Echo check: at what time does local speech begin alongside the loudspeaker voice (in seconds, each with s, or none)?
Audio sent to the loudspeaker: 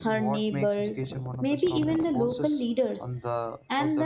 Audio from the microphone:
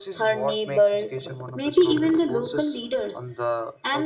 none